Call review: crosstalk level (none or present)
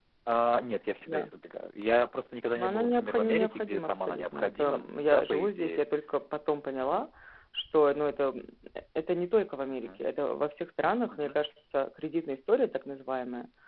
present